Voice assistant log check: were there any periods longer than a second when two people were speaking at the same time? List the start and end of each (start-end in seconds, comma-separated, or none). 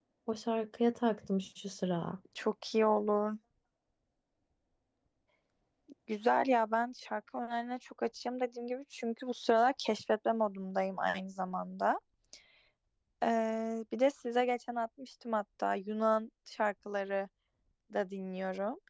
none